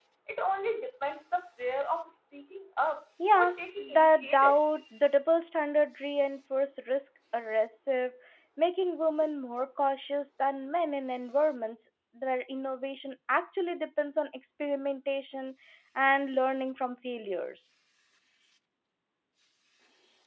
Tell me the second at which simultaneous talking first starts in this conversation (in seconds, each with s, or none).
3.2 s